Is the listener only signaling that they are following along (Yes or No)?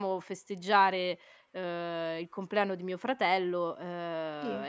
Yes